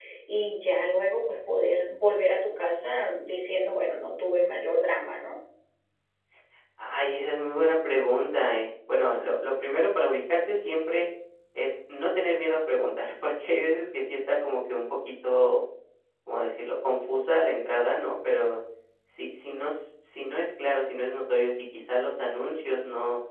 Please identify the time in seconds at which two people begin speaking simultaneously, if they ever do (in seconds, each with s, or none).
none